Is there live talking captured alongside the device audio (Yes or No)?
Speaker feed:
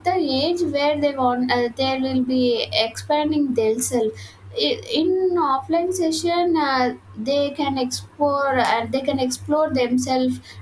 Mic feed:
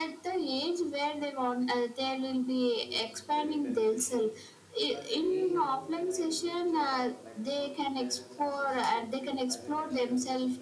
Yes